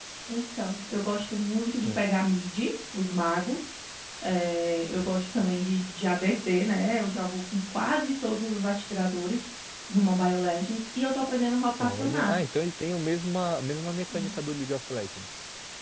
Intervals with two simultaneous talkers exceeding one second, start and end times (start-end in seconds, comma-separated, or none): none